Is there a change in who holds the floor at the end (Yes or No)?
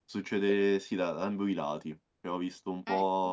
No